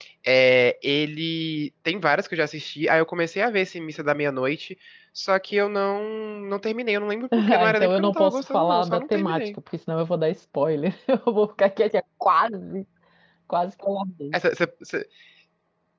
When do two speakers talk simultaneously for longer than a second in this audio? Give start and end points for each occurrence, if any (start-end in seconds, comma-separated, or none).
7.4-9.6